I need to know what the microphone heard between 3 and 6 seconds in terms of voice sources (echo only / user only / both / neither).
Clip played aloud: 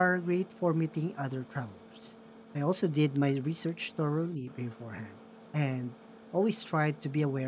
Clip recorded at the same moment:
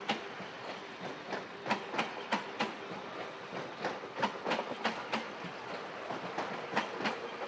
neither